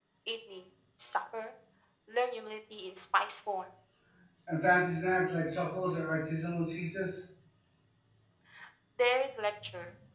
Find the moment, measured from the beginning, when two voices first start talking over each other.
none

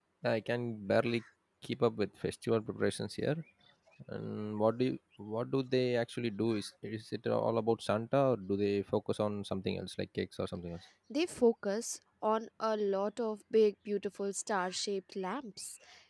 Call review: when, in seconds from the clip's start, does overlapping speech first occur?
none

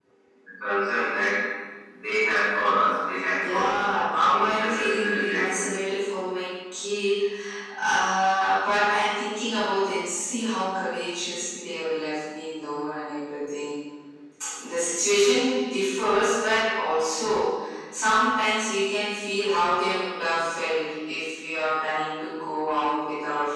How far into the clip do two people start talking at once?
3 s

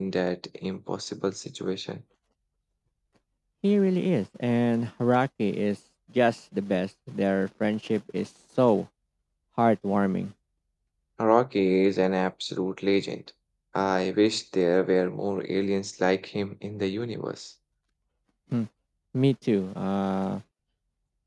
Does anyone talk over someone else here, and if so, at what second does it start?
none

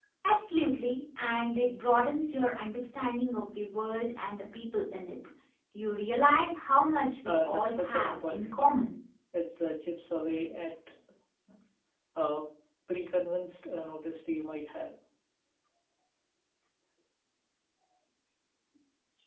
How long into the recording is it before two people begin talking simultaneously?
7 s

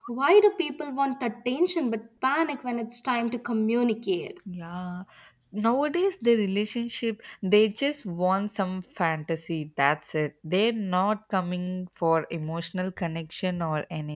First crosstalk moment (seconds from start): none

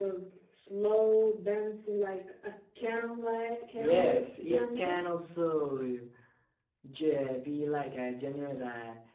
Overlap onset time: 4 s

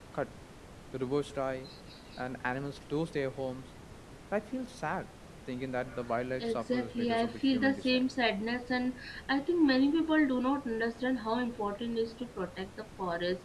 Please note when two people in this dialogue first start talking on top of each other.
6 s

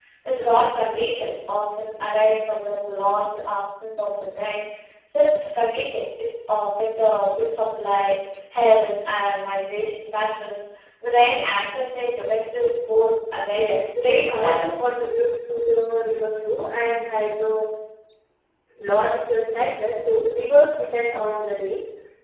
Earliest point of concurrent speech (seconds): 14 s

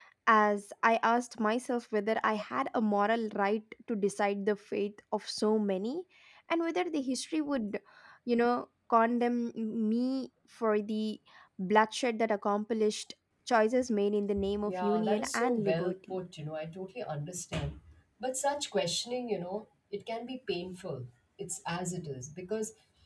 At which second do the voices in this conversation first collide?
14 s

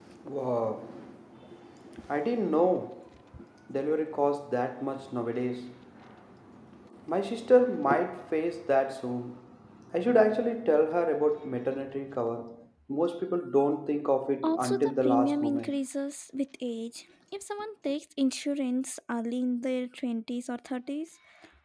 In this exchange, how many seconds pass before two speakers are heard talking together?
14 s

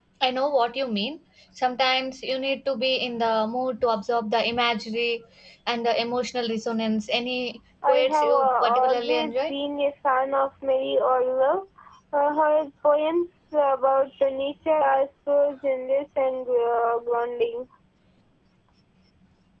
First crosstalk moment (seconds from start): 8 s

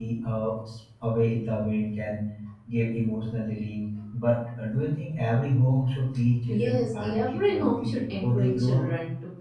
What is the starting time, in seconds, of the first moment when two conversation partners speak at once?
6 s

